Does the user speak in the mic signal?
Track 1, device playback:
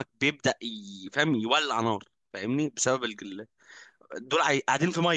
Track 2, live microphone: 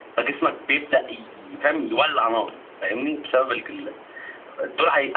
No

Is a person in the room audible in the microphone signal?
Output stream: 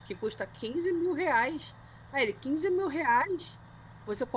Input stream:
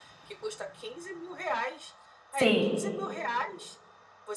Yes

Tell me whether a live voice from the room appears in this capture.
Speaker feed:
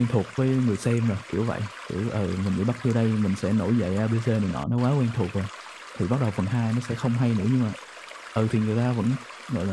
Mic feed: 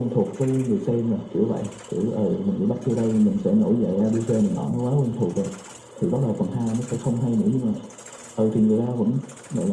No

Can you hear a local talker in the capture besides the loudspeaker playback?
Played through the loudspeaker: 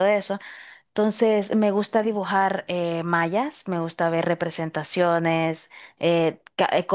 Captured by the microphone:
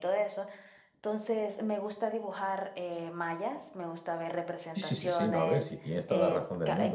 Yes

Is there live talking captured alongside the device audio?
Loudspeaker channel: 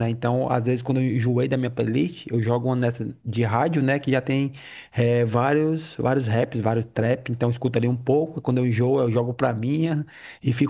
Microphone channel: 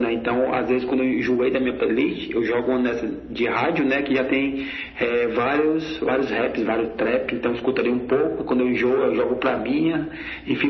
No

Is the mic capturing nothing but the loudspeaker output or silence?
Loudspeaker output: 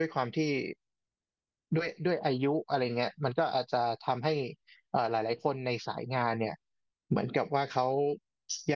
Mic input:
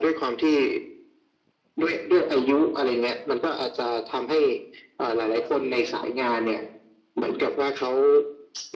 No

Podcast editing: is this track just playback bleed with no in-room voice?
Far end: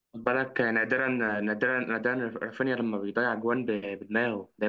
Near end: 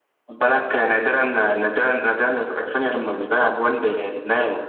Yes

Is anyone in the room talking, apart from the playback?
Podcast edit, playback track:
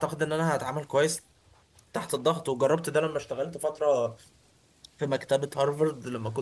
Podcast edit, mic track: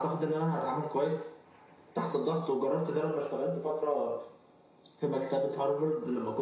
No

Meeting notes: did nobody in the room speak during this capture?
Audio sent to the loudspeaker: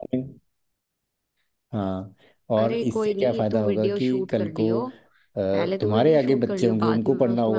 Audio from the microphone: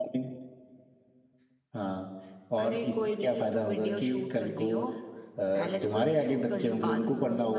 Yes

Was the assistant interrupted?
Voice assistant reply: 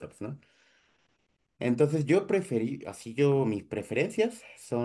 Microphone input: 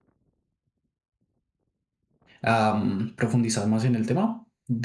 Yes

